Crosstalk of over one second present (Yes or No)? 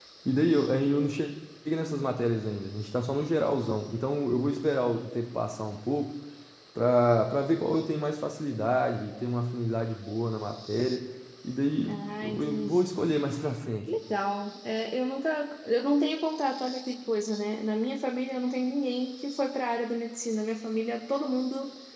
Yes